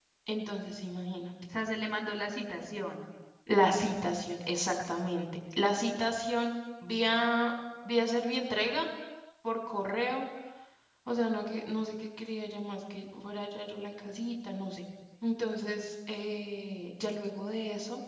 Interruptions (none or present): none